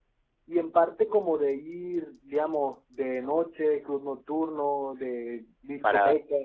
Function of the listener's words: taking over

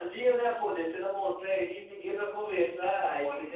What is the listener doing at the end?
taking over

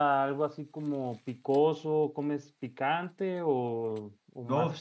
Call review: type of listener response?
taking over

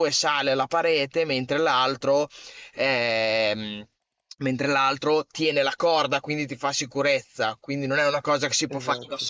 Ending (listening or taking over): listening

